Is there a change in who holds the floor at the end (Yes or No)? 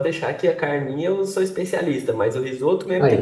No